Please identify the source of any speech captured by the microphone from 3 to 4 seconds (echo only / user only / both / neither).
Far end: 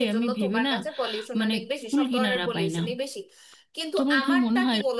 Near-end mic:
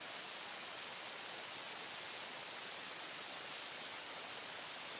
neither